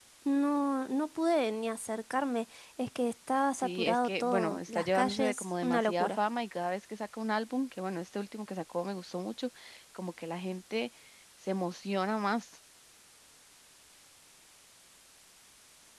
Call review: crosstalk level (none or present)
present